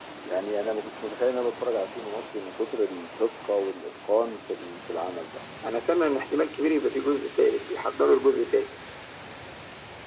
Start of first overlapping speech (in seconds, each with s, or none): none